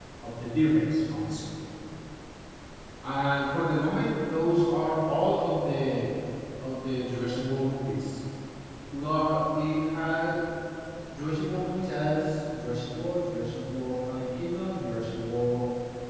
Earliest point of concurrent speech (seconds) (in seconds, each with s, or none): none